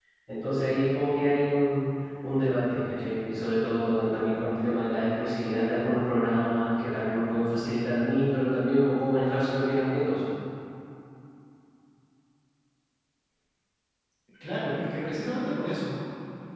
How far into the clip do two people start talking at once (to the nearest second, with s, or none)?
none